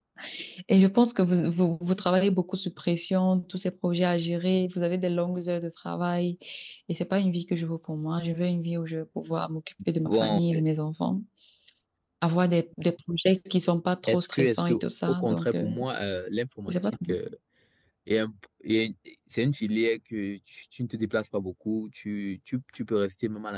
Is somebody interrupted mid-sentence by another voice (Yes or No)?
Yes